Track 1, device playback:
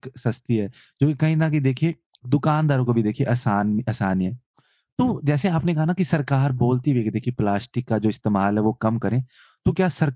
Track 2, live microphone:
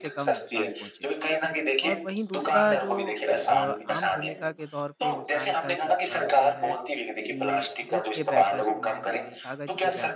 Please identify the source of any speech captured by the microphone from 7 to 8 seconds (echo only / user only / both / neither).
both